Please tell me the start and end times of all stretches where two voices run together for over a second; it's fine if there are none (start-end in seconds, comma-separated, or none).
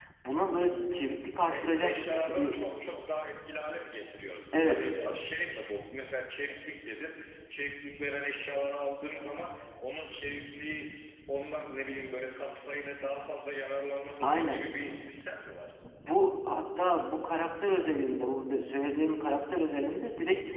none